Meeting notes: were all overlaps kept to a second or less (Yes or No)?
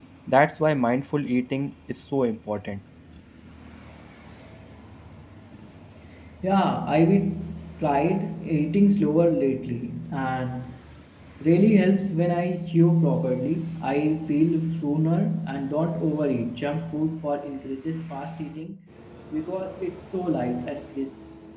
Yes